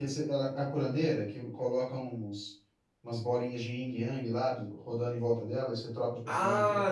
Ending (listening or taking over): taking over